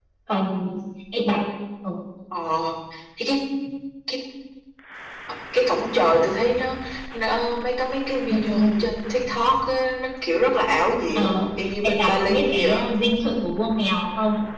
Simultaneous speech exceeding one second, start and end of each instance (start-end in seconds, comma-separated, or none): 11.1-12.8